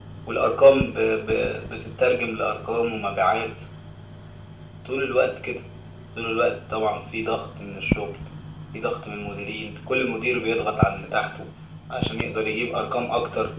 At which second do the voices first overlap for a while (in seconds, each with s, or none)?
none